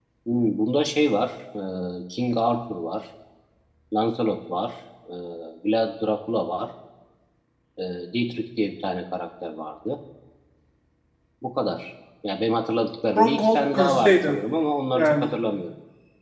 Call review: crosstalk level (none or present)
present